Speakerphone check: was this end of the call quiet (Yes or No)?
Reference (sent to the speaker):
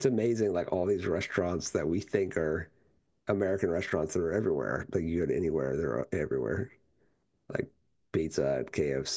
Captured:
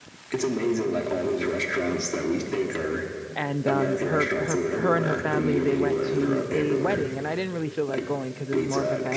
No